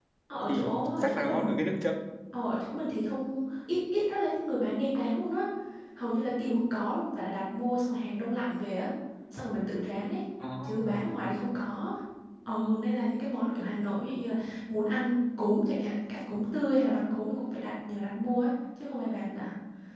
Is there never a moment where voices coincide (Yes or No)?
No